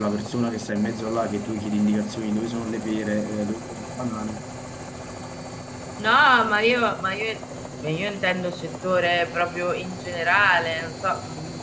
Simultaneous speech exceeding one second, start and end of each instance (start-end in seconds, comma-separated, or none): none